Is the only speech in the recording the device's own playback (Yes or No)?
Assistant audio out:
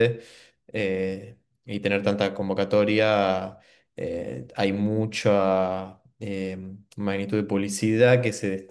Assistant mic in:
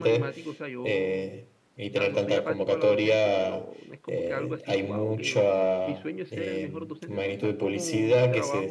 No